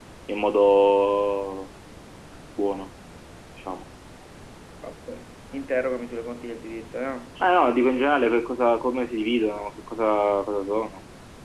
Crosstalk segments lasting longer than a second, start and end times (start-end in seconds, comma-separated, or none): none